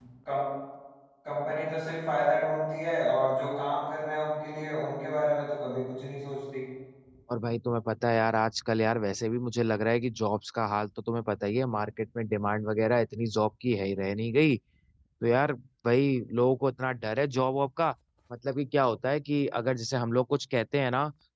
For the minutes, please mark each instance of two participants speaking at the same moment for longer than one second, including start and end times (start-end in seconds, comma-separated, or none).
none